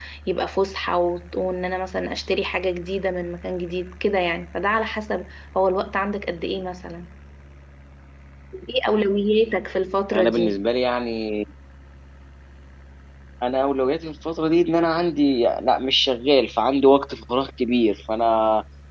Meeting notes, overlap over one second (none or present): none